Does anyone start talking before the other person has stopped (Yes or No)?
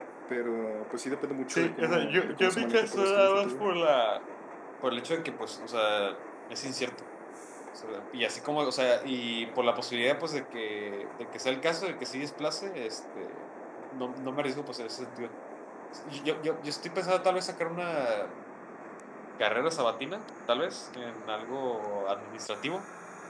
Yes